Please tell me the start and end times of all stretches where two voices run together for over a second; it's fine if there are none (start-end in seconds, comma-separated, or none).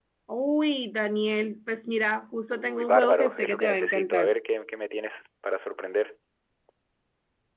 2.5-4.3